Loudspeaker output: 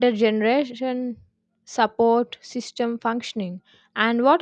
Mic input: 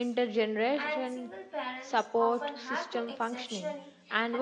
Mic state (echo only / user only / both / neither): both